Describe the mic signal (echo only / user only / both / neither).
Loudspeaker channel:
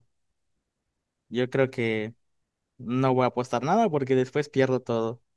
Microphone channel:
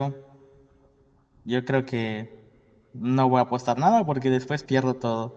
echo only